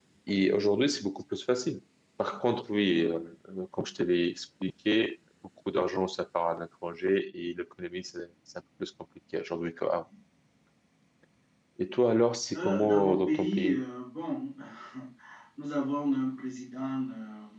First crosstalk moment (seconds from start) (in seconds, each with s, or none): 12.6 s